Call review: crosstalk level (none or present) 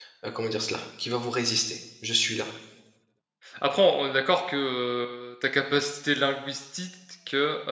none